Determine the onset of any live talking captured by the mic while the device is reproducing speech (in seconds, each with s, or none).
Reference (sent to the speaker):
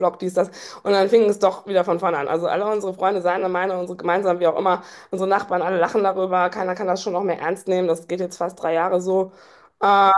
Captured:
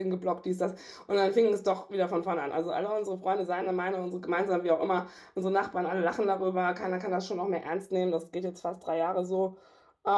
none